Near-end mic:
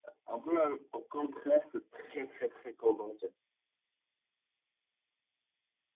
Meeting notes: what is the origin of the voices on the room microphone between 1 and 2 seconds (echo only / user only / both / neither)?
echo only